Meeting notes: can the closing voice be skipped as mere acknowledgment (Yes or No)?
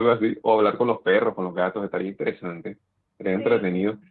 Yes